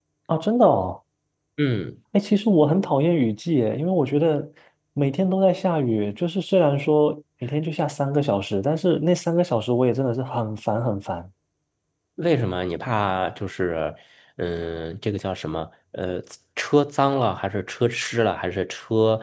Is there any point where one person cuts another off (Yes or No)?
No